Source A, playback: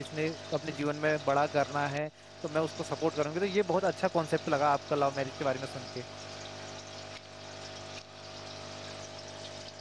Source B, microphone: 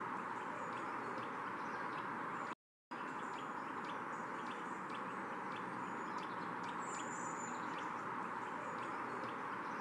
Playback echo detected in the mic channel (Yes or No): No